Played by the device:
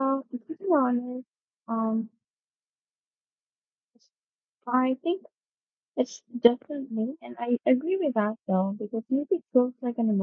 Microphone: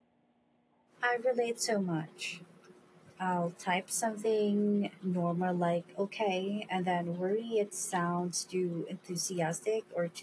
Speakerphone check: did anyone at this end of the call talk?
Yes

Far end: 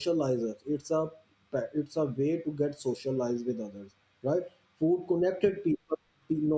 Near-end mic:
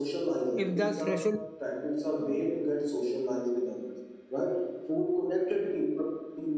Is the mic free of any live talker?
No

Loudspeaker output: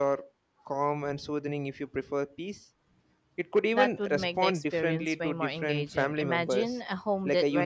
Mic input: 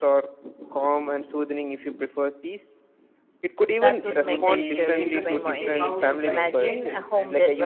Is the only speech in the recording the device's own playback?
No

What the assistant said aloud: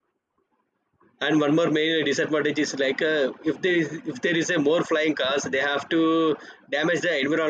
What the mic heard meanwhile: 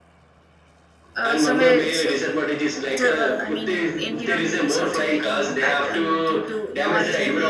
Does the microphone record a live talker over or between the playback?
Yes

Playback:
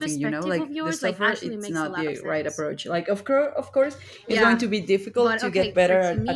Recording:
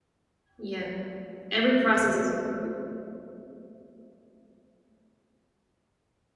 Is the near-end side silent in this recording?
No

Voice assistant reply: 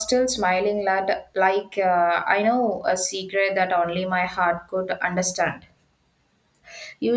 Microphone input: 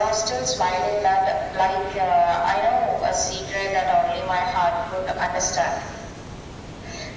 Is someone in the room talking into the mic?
No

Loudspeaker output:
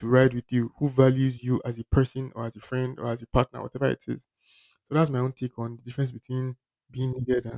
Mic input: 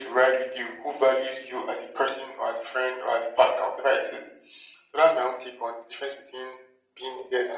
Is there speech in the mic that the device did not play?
No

